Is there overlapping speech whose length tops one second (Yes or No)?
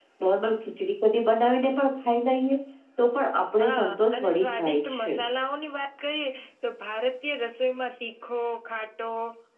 Yes